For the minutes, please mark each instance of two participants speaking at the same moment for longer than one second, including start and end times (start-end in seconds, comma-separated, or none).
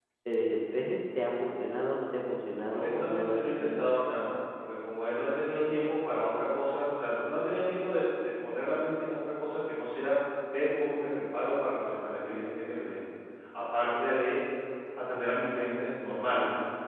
2.7-3.9